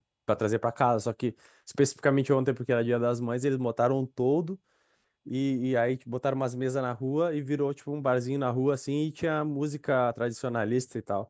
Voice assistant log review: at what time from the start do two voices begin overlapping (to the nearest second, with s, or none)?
none